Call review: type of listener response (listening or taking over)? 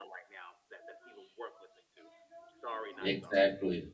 taking over